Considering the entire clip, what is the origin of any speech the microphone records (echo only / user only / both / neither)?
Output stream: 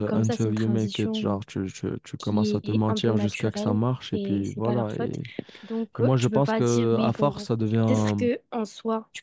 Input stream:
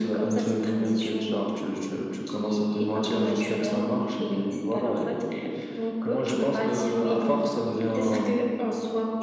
echo only